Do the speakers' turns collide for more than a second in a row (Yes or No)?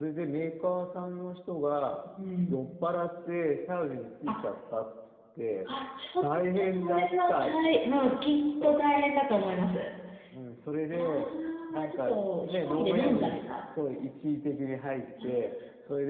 Yes